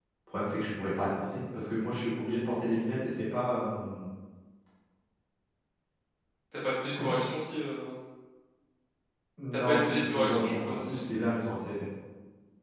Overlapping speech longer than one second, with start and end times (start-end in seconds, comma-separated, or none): 9.7-11.0